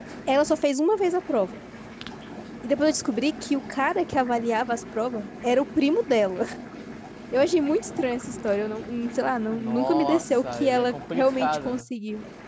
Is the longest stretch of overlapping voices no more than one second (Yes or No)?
No